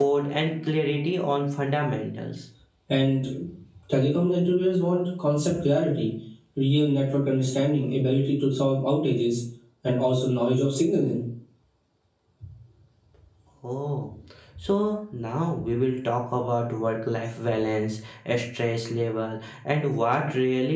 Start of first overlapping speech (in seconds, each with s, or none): none